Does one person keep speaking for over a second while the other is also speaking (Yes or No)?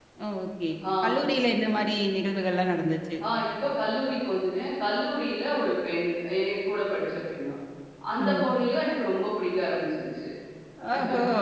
No